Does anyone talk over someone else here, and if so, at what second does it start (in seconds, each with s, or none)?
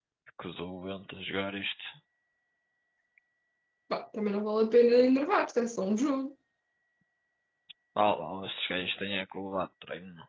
none